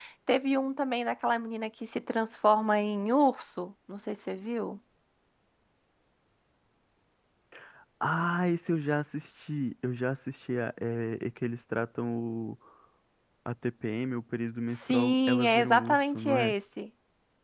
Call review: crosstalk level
present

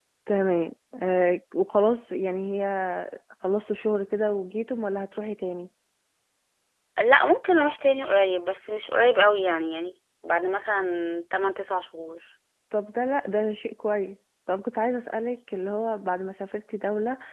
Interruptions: none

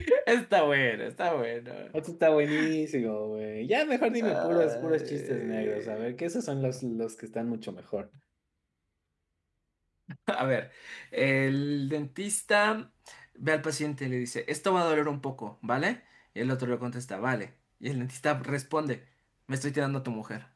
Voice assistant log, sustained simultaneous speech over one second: present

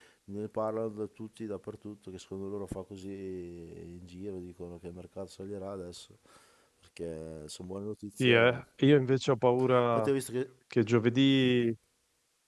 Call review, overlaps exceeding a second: none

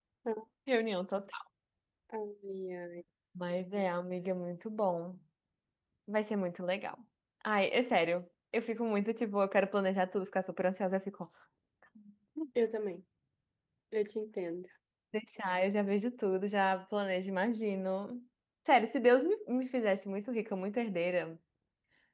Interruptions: none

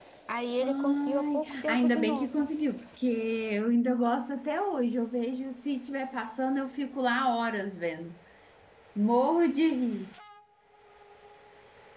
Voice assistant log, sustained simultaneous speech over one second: present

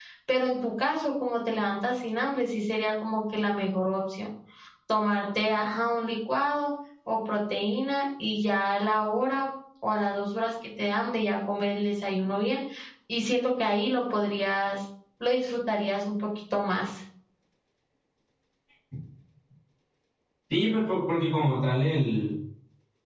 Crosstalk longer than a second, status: none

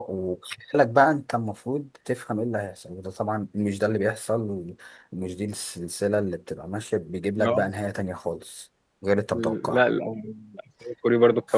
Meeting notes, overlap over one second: none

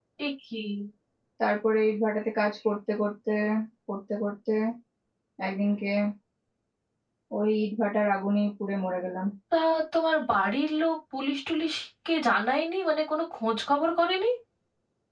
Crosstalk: none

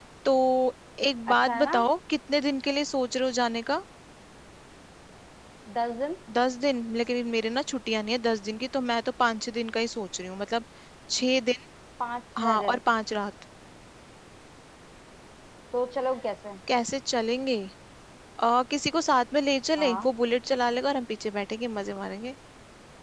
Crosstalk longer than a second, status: none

